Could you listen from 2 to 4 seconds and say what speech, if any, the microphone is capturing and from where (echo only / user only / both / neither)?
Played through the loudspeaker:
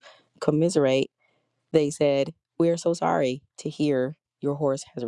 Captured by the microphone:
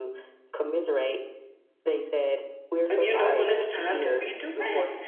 both